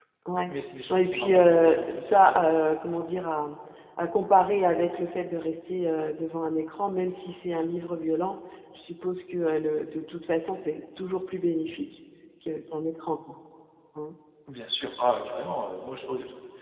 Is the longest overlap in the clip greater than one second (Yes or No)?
Yes